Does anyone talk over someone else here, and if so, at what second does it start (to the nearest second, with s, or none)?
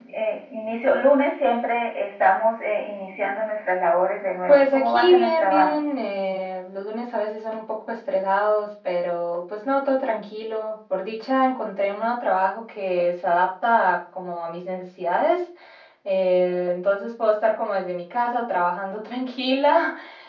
4 s